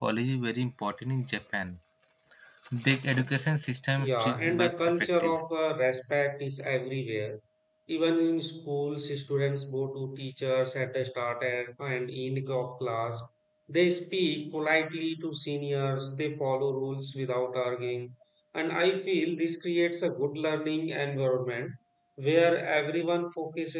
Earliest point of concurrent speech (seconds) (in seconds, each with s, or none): 4.0 s